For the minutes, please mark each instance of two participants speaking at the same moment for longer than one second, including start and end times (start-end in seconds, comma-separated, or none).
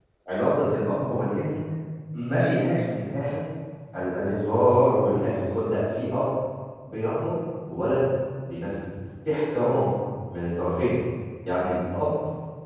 none